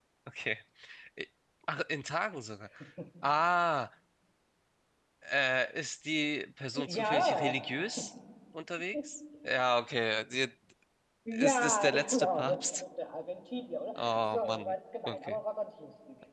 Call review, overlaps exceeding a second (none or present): present